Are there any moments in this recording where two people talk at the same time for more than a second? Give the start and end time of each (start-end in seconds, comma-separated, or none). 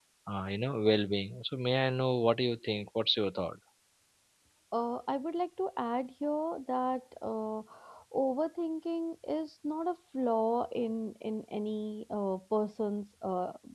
none